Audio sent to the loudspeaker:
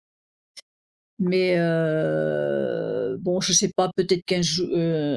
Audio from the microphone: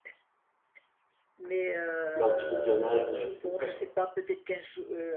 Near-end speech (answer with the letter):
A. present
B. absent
A